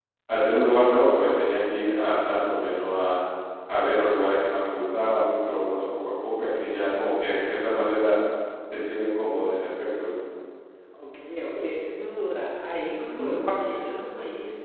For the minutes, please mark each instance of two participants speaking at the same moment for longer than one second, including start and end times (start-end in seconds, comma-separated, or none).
none